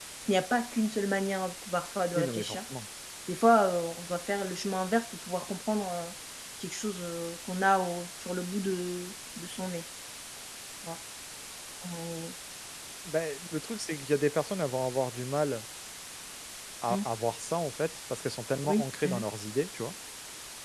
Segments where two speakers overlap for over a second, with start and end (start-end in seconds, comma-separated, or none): none